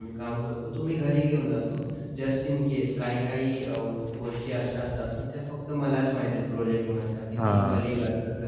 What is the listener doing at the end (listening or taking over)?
listening